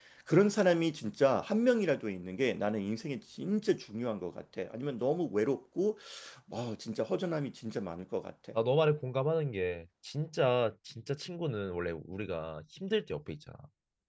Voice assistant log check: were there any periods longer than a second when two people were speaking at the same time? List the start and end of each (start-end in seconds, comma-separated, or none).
none